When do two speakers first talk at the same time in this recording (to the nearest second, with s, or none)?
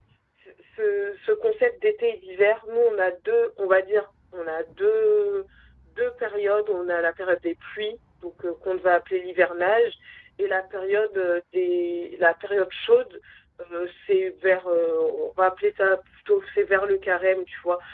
none